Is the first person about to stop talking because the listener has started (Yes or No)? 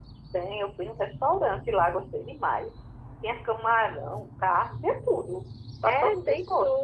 Yes